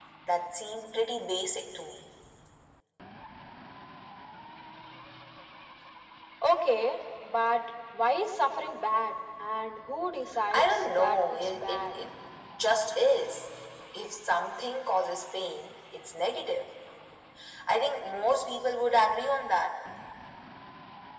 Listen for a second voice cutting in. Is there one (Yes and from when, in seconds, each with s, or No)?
Yes, from 10.5 s